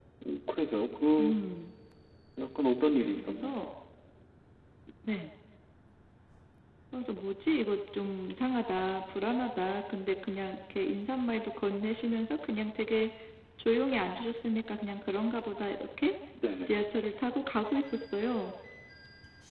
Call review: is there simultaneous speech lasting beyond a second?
No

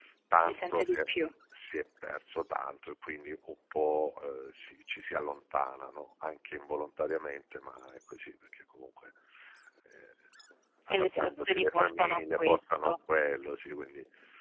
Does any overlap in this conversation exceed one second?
Yes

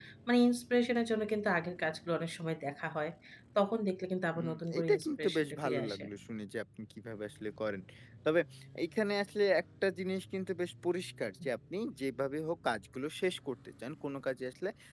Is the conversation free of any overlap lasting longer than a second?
No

